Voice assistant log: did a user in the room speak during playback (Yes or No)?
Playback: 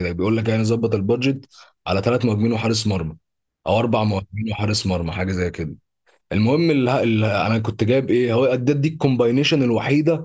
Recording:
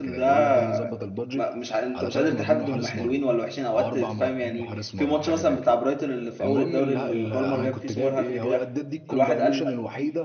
Yes